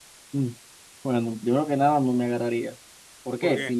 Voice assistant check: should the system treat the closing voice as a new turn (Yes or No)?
No